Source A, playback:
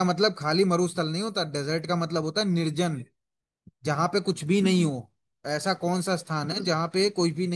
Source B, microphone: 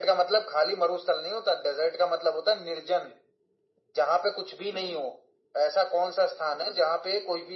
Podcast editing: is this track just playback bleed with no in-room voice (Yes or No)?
Yes